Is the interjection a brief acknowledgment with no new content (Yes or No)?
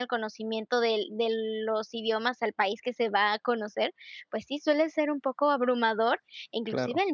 Yes